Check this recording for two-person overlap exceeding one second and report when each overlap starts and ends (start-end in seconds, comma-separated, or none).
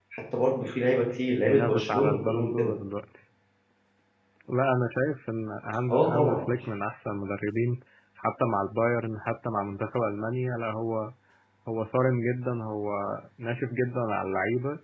1.4-2.7